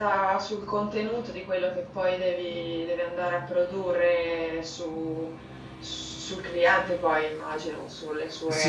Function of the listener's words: taking over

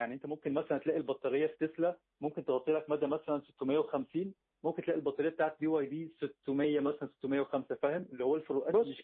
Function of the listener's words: taking over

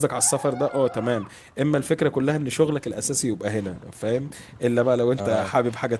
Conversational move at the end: listening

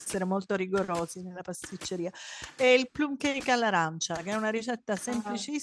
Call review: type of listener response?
listening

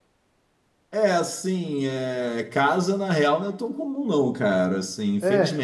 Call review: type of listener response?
listening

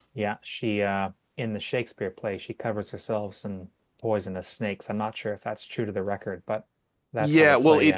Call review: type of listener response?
taking over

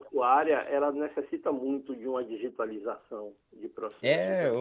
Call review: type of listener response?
taking over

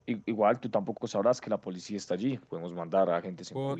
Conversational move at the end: taking over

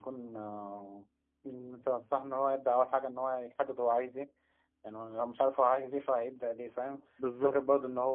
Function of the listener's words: listening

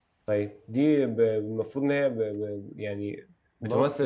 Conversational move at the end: listening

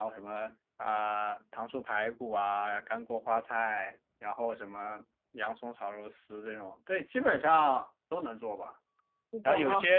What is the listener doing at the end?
listening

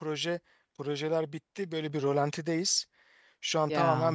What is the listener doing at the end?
listening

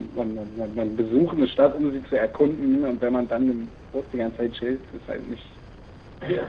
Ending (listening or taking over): taking over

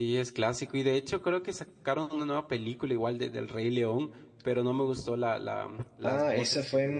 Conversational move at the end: taking over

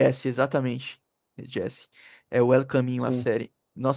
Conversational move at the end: listening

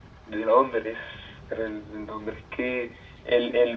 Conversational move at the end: listening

